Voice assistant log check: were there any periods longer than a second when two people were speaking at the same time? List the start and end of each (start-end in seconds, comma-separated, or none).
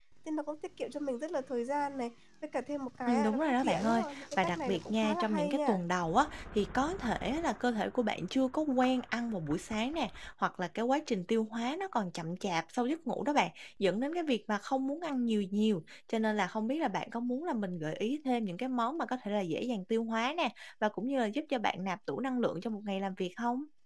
3.1-5.8